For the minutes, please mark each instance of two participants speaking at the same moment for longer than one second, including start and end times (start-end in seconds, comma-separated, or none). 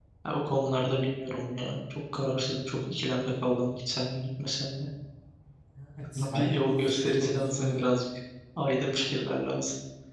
6.2-7.8